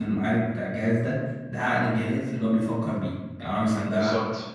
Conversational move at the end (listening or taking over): listening